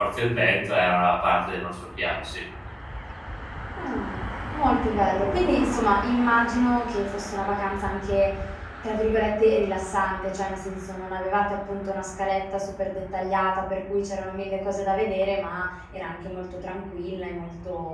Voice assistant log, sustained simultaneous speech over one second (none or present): none